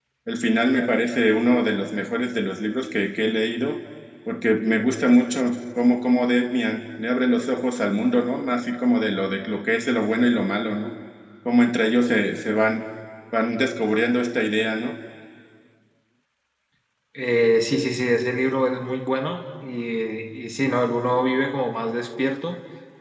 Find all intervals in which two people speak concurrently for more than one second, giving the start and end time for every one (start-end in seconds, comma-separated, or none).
none